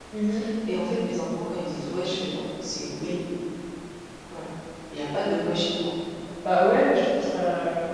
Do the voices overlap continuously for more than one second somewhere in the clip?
No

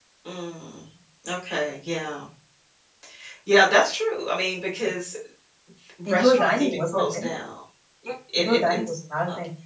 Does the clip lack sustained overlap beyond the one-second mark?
No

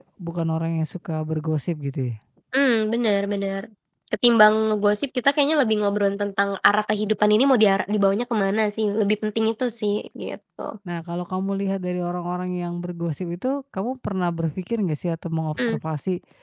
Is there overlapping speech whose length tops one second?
No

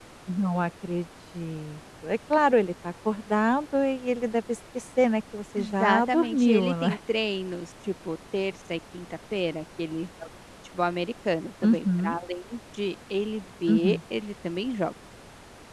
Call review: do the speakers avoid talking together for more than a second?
No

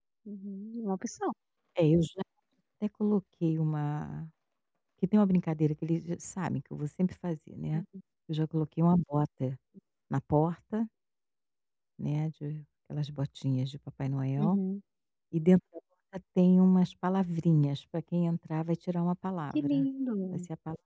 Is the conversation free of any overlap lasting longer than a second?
Yes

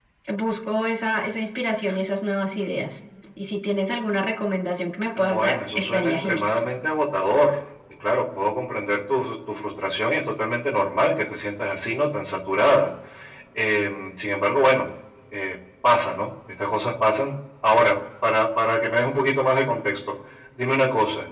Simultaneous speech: Yes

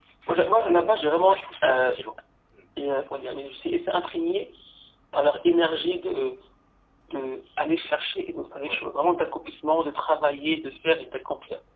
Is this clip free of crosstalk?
No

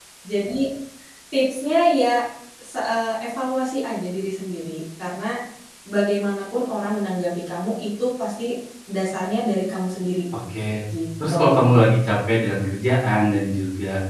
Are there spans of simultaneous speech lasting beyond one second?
No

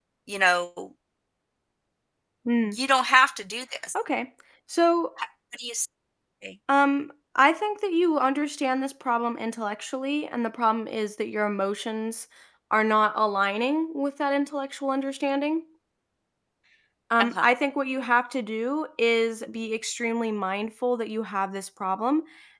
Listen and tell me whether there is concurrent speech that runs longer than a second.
No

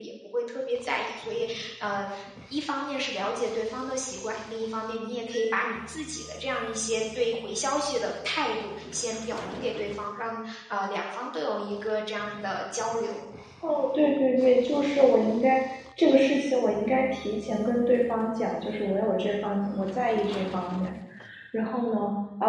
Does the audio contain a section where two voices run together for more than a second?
No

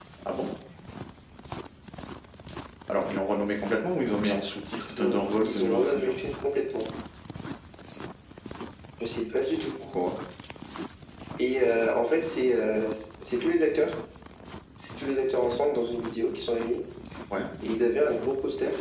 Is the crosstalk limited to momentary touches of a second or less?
No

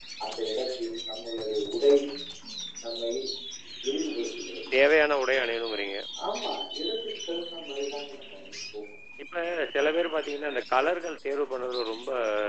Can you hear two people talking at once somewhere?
No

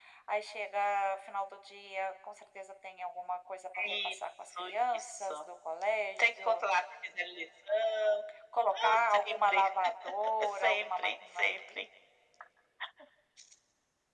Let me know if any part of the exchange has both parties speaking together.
Yes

